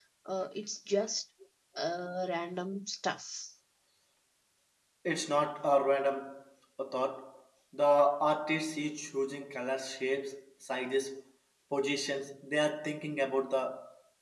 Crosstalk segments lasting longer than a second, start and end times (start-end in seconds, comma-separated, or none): none